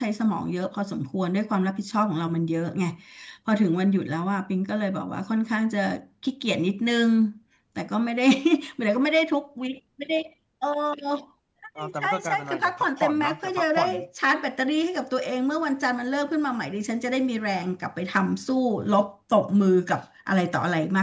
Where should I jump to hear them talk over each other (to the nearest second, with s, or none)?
12 s